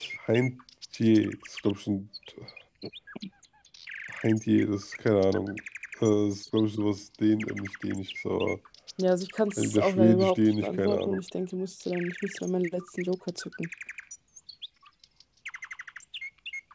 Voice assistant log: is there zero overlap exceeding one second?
No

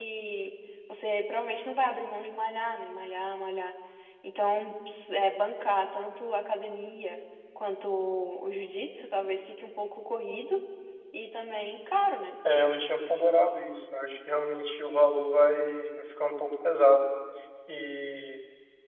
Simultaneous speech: No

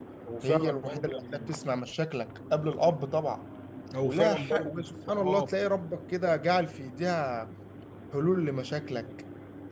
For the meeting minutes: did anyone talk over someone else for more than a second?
Yes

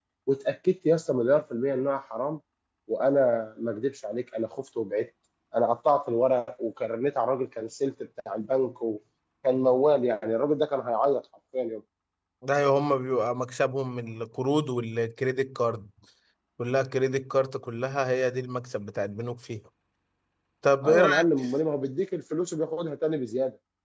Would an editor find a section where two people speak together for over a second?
No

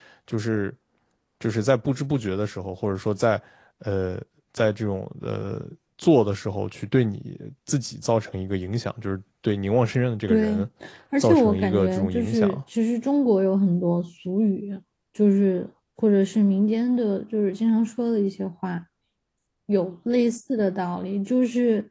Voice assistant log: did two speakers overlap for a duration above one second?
Yes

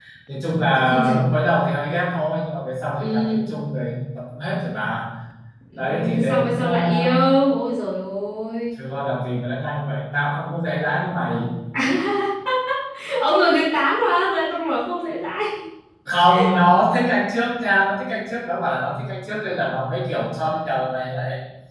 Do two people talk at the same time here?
Yes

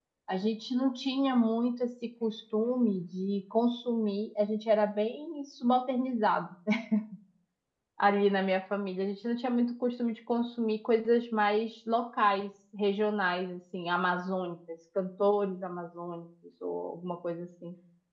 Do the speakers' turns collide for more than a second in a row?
No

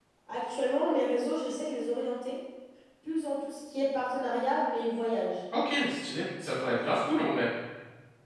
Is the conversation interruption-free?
Yes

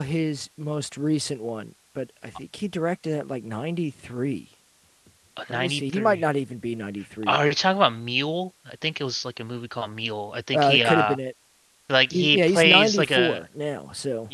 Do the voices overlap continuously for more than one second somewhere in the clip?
Yes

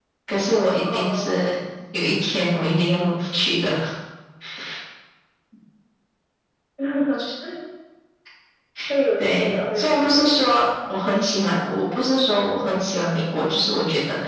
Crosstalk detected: Yes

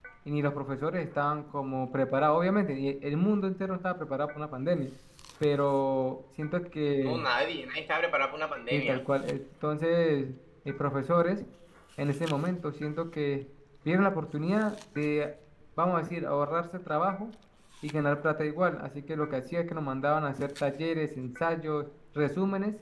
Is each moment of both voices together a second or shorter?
Yes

